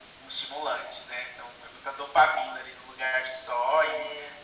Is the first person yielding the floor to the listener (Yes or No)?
No